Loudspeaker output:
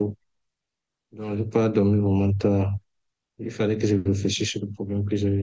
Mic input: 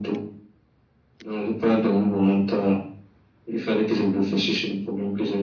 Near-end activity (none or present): none